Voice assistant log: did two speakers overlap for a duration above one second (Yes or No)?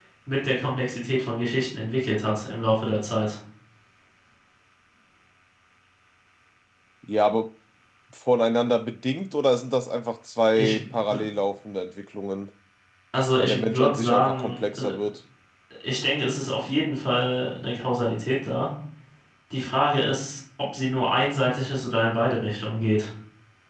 Yes